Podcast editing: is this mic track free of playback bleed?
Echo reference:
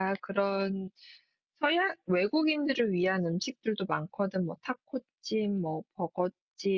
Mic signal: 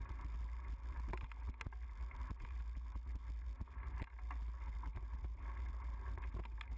Yes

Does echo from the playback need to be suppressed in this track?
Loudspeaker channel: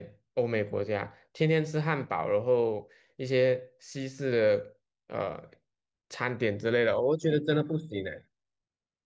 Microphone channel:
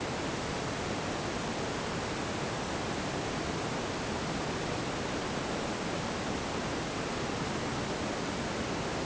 No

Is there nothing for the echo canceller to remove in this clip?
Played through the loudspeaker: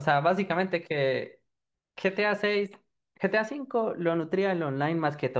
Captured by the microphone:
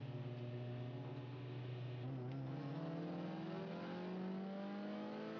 Yes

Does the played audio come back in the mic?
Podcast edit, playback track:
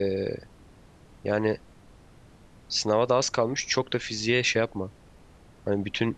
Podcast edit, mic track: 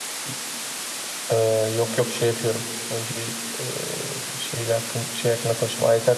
No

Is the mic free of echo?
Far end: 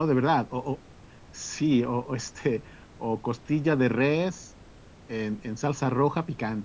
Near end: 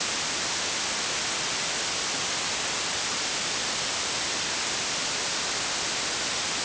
Yes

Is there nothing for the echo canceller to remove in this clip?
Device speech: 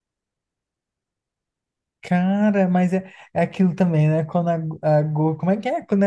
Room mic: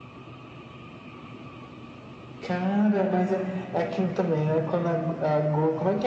No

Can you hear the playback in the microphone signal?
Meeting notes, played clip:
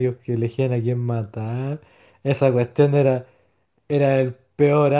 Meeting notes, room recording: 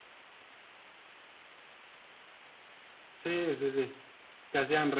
No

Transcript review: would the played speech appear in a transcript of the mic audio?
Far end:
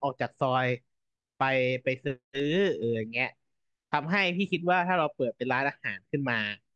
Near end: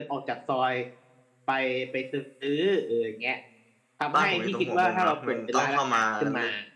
Yes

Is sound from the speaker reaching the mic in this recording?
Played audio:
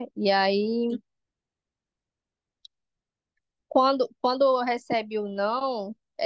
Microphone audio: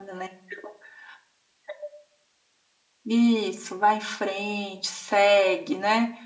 No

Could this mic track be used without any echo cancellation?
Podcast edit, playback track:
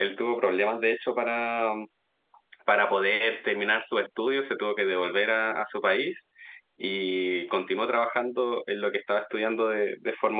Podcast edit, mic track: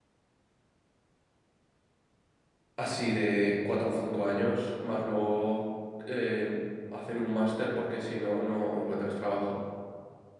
Yes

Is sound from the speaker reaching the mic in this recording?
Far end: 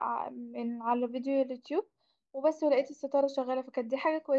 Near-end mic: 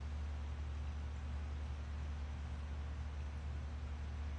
No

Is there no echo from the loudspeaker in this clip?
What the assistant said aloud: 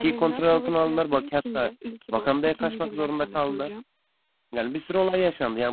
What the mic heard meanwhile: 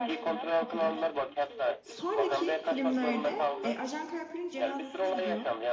No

